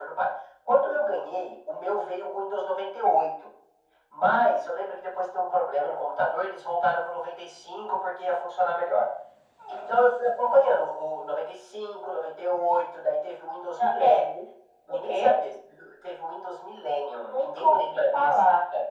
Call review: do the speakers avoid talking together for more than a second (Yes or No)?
No